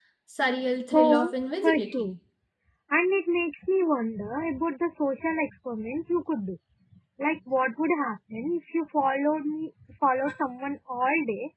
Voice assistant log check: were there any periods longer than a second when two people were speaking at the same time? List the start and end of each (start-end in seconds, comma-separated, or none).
0.9-2.1